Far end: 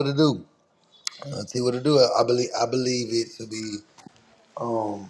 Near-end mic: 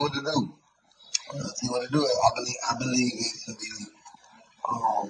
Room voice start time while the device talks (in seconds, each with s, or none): none